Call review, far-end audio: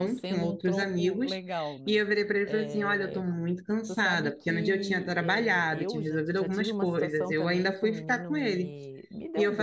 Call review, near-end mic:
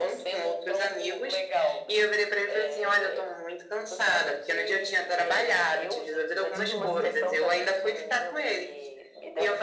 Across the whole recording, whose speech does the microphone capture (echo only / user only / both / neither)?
both